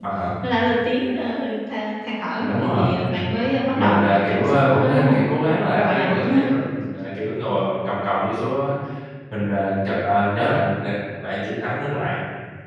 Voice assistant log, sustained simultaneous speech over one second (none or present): present